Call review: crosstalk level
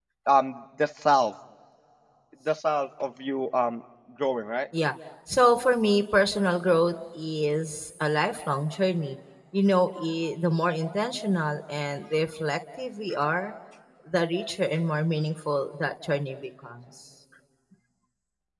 none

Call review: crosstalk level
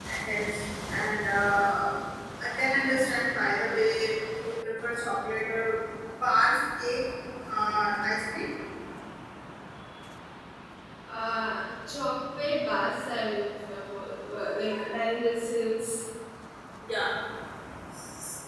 none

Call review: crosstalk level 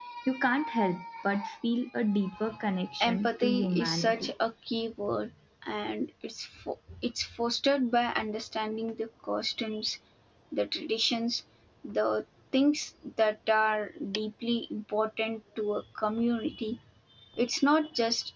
present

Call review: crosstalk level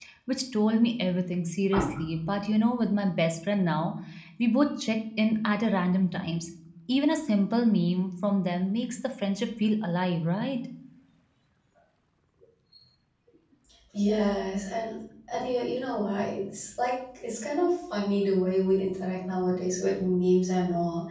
none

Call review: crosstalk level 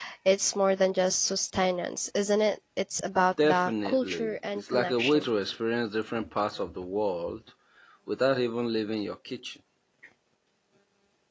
present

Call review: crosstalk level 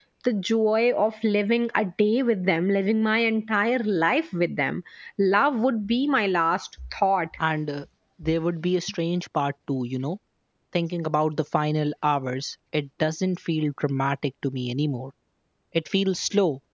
none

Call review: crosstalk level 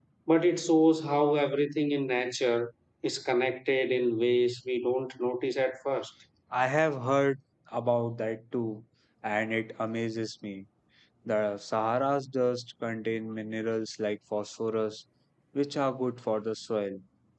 none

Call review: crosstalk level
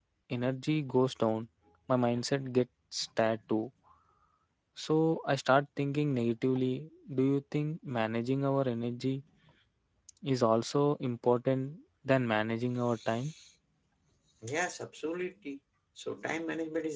none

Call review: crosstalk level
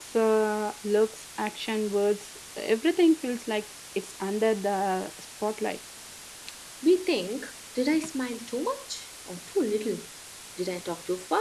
none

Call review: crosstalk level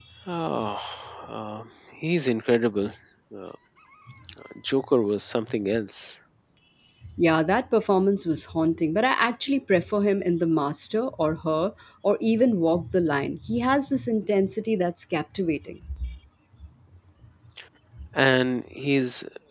none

